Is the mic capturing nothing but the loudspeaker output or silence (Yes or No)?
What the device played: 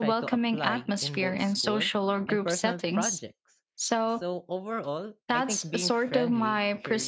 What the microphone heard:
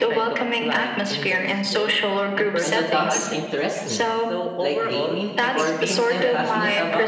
No